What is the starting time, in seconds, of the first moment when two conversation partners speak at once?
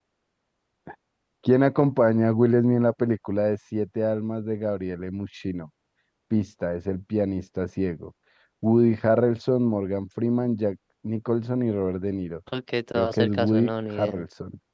13 s

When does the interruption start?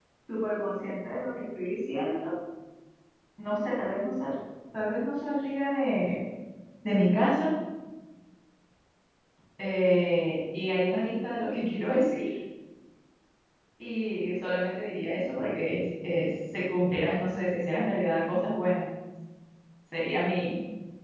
none

